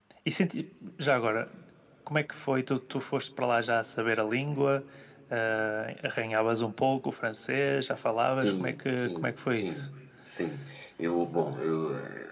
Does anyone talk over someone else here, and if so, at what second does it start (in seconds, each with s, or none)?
8.4 s